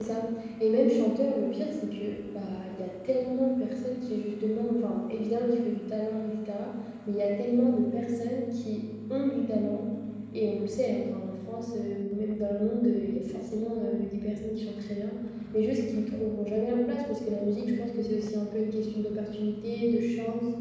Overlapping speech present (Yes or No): No